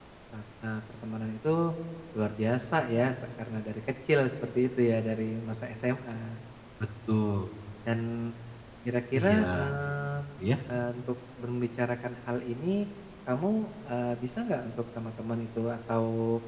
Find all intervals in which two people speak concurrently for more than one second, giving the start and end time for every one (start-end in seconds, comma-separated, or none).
none